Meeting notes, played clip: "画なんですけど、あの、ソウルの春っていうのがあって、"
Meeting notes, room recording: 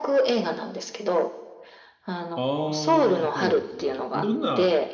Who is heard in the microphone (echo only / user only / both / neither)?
both